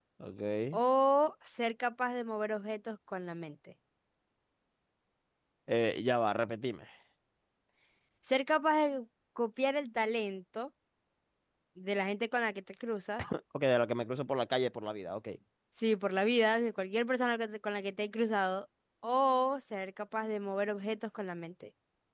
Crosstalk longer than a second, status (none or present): none